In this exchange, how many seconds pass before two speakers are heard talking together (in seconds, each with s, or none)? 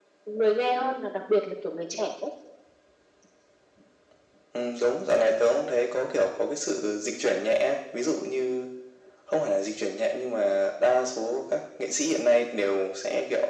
none